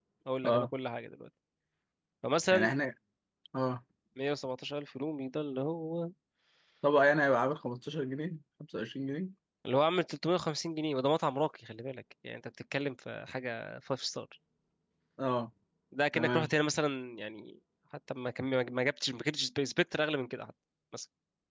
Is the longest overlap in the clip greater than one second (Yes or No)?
No